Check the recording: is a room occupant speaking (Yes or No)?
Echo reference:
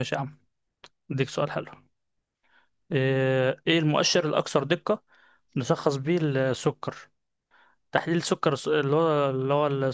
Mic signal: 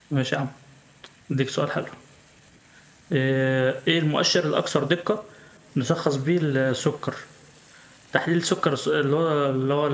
No